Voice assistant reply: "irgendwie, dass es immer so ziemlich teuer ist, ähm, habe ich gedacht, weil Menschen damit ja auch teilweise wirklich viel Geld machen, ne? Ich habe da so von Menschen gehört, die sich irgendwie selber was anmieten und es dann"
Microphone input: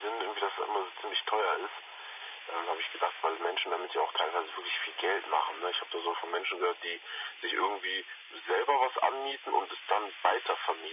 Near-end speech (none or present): none